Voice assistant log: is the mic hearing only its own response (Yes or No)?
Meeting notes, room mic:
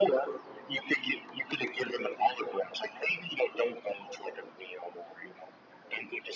Yes